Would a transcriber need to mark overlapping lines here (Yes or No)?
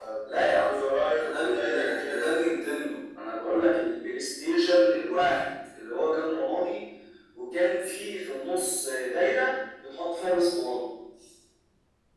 Yes